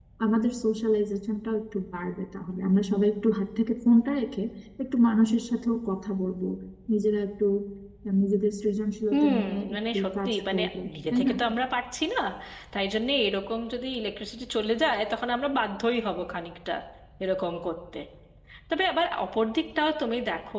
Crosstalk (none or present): present